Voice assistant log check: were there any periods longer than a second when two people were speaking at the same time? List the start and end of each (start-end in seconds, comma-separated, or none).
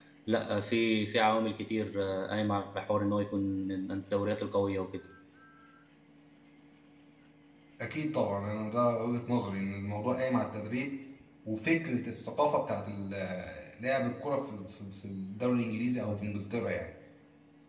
none